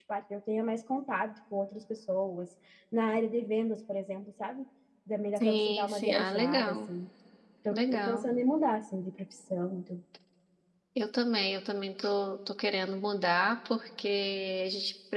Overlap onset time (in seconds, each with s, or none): 5.4 s